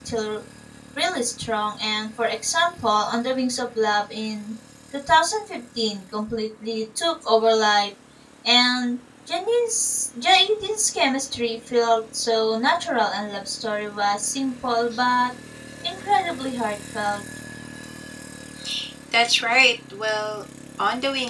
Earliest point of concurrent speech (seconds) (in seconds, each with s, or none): none